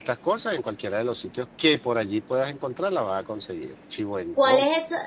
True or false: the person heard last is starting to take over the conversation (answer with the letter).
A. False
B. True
B